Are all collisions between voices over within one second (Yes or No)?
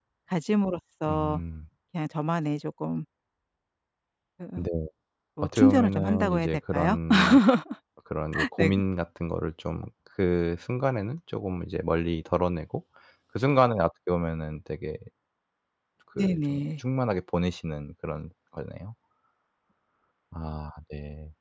No